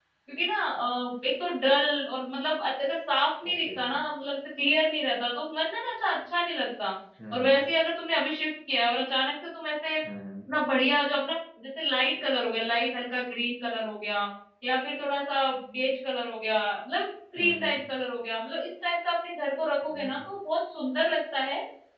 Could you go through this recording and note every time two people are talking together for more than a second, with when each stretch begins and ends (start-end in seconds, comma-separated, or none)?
none